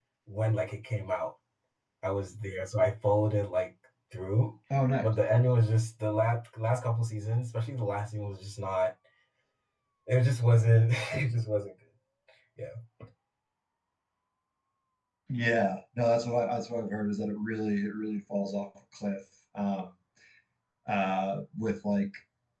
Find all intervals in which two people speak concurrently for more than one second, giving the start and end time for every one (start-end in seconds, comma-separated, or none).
none